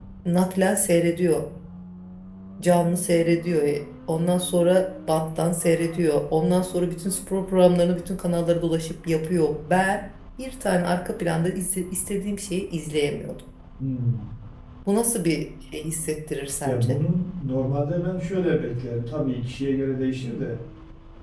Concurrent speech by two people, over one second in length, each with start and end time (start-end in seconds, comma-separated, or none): none